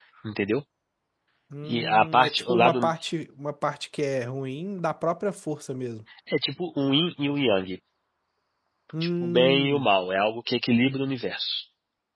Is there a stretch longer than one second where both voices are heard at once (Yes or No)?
Yes